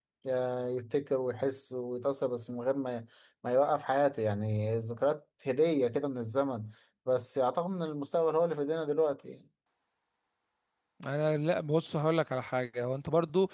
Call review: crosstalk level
none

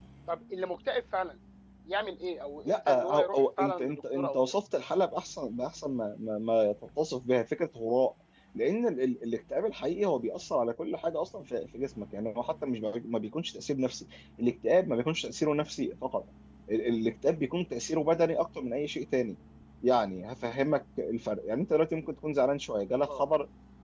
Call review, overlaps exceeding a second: present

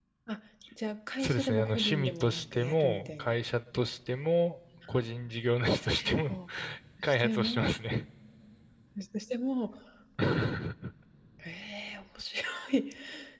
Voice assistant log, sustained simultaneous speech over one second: present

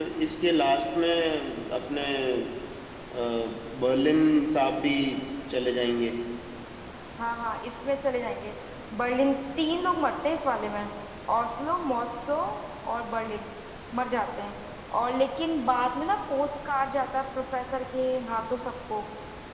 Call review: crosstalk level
none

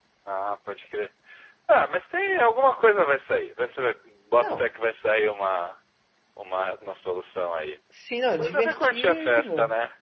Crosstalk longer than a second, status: present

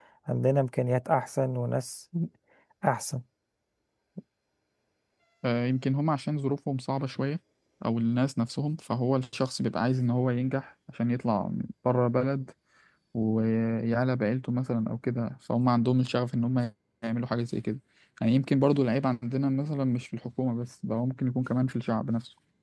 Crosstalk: none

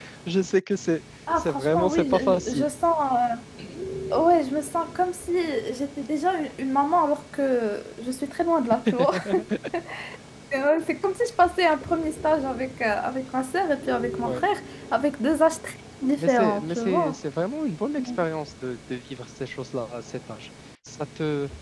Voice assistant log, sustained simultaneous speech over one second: present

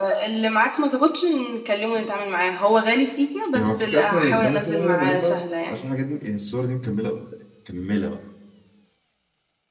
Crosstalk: present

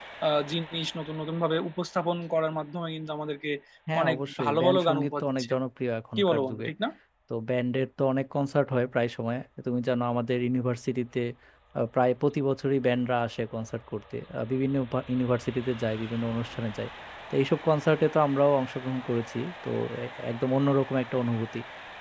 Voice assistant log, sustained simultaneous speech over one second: present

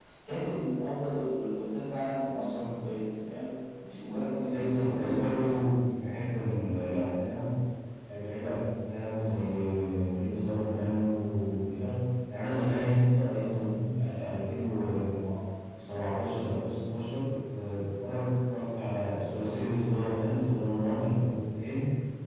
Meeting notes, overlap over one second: present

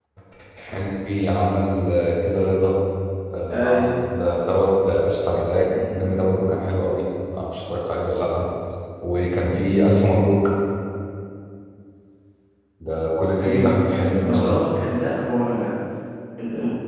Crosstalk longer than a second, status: none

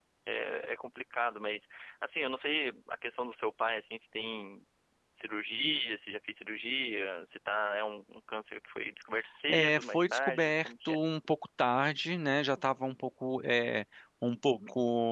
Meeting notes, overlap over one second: present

